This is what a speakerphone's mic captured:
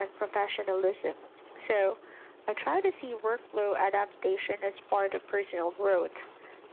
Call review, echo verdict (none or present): present